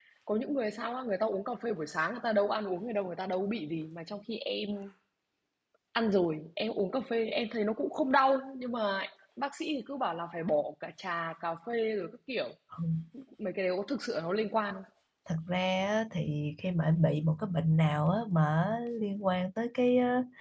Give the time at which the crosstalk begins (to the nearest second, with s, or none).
none